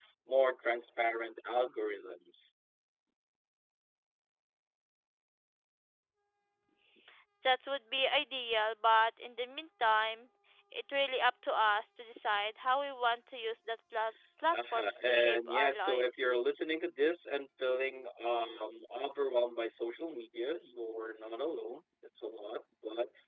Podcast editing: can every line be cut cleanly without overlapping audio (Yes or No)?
No